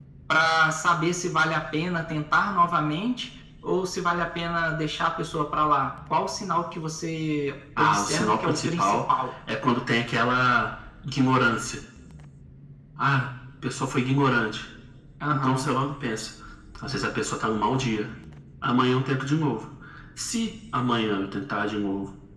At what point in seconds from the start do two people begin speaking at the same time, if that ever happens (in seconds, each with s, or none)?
7.8 s